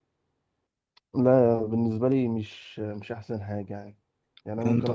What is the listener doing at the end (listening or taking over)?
listening